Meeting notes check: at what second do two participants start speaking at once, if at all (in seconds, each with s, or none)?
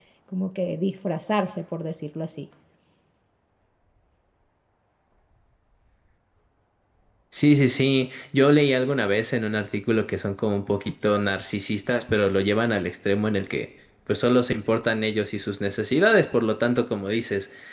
none